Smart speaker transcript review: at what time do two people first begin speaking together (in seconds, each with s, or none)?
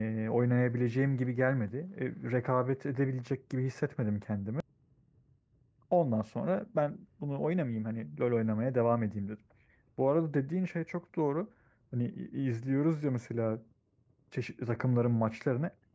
none